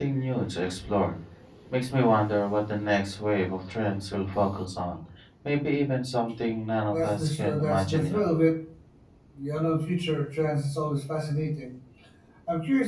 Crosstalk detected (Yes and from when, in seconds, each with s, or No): Yes, from 6.9 s